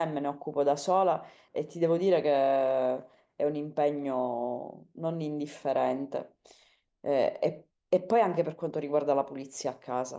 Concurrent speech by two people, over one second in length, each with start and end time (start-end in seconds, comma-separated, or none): none